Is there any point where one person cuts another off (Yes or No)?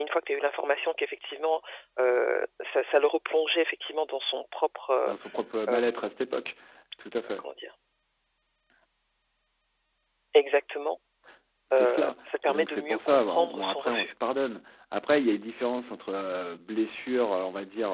Yes